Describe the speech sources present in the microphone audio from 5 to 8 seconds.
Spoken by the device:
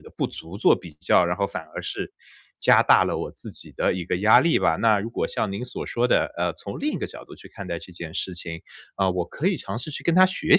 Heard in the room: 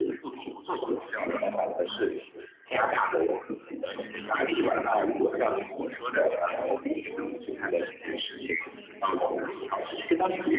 both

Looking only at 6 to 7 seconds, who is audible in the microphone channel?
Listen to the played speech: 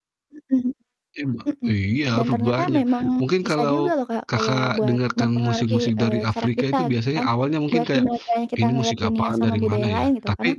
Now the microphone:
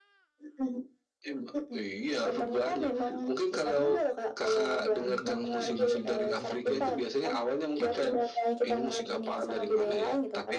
both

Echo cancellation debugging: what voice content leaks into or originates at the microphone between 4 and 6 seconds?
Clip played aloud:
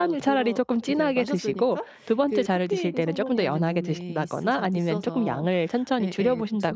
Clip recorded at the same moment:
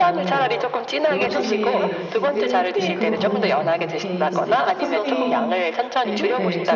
both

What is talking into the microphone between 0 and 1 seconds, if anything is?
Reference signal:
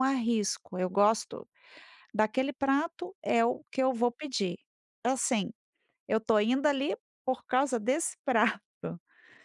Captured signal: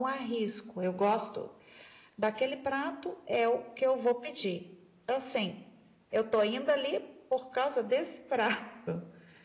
echo only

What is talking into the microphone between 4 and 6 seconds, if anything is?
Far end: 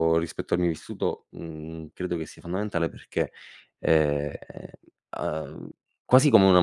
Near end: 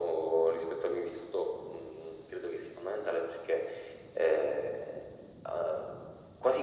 echo only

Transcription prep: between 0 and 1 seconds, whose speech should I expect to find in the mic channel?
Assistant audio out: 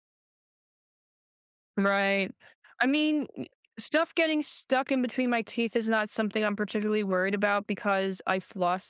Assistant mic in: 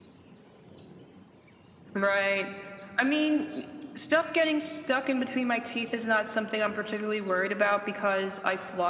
neither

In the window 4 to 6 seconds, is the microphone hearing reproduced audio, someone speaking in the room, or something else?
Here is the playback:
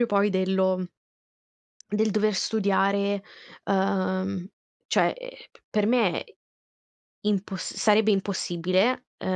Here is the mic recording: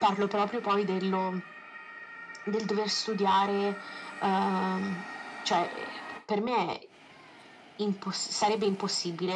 echo only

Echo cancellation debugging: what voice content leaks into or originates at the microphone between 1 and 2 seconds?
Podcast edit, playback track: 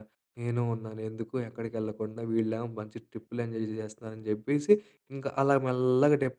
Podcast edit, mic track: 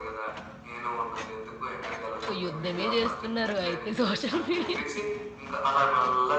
echo only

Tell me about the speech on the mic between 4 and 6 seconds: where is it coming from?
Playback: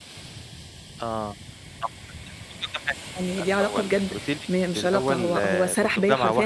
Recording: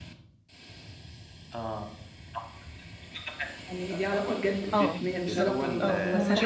both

